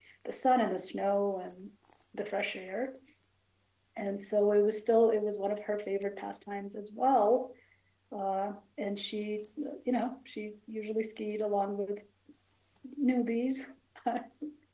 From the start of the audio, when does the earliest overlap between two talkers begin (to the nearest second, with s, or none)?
none